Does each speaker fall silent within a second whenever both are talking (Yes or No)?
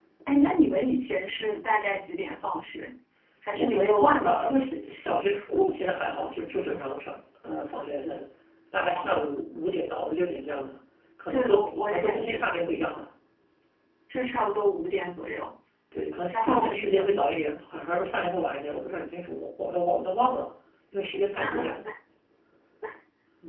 No